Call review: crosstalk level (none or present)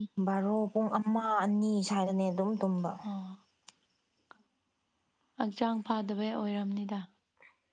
none